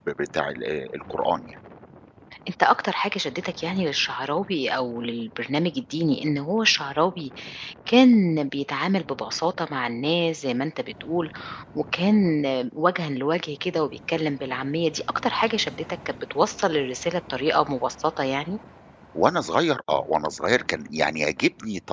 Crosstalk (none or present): none